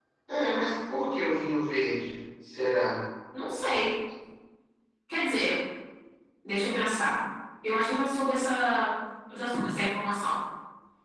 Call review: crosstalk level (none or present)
none